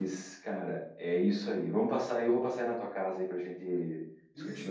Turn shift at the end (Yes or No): Yes